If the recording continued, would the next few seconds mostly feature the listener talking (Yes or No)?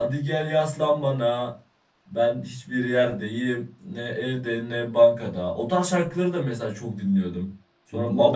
Yes